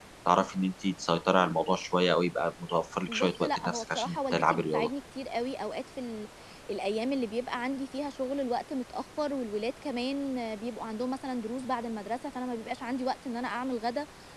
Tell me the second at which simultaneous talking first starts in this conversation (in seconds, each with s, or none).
3.1 s